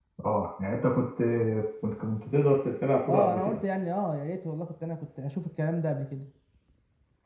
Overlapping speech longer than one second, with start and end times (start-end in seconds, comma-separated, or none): none